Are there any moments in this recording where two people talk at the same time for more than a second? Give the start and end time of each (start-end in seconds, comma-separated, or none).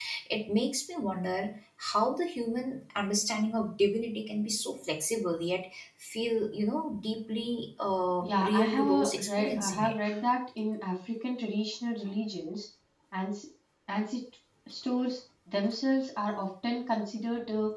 8.2-9.9